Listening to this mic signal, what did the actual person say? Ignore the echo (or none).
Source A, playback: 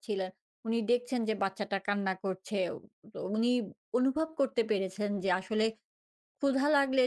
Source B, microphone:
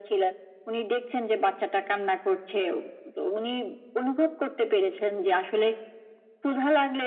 none